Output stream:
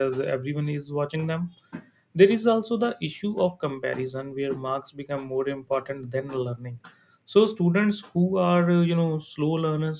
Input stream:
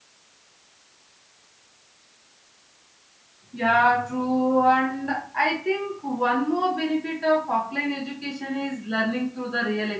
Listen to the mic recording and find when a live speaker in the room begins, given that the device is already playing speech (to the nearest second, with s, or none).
4 s